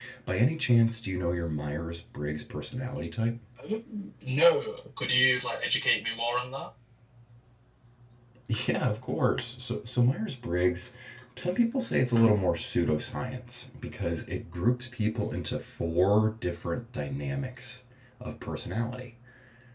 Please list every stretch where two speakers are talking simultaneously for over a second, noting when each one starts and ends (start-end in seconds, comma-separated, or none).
none